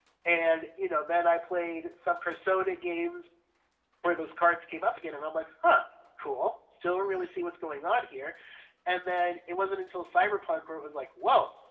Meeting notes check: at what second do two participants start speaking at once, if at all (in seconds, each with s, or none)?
none